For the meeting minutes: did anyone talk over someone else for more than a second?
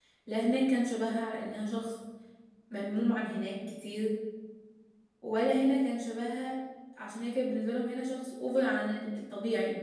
No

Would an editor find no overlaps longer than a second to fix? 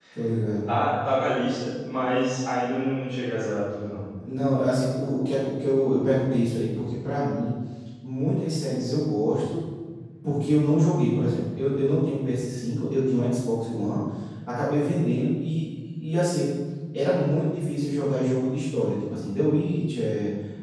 Yes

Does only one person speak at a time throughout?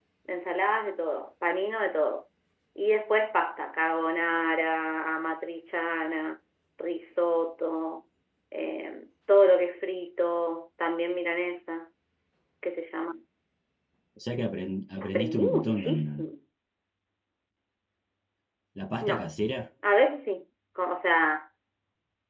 No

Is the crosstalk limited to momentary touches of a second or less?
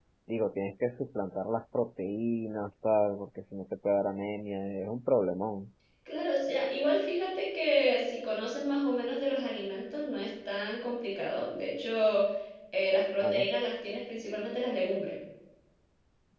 Yes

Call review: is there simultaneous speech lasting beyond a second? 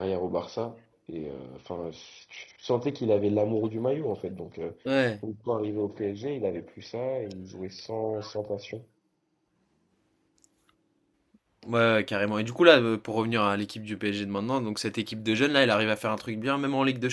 No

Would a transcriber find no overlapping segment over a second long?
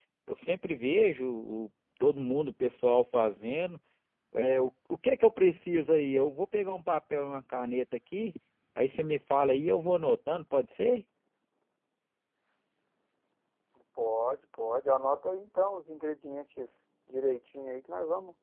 Yes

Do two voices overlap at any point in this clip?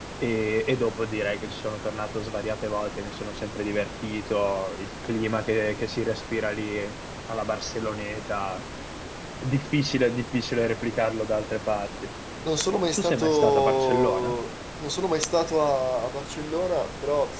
Yes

